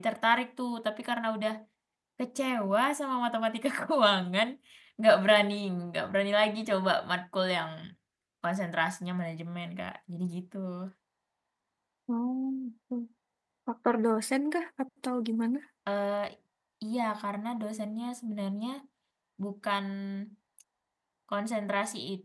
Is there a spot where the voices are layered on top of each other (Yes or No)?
No